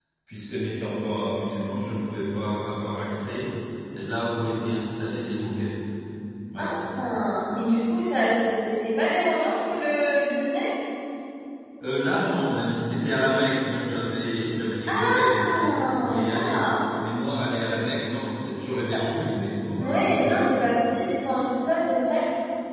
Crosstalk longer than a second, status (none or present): present